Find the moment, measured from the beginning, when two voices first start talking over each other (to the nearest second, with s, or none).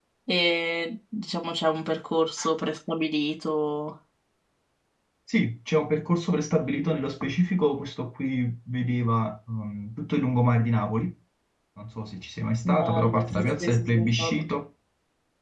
13 s